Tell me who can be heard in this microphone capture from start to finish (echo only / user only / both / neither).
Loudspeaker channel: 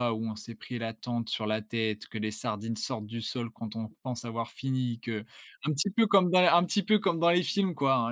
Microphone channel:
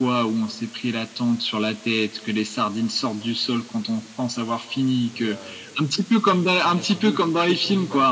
both